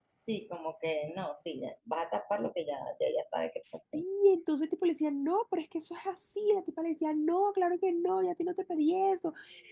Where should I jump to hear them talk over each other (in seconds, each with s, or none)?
none